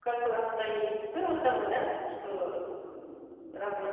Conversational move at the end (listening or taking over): listening